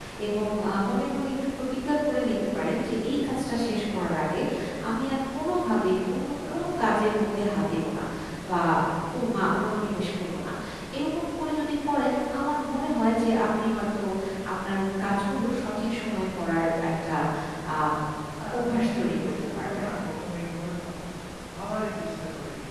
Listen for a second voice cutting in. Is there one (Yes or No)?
Yes